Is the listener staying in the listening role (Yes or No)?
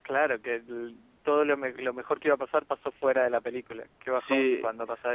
No